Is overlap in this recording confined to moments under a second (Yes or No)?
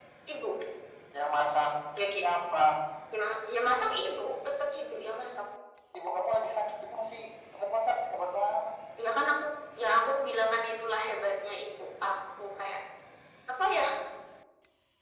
Yes